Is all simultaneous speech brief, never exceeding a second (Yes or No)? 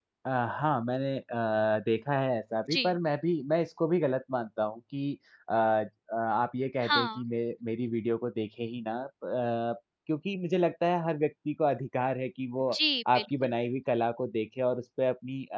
Yes